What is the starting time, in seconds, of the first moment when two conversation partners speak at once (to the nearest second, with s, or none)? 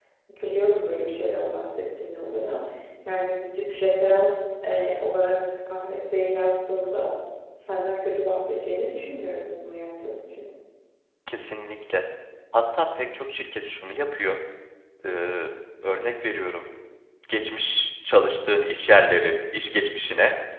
none